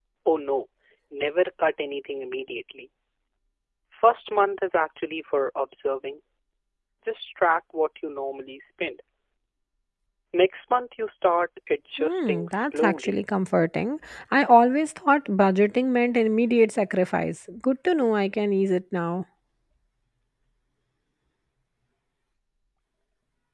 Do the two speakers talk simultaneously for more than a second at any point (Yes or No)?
Yes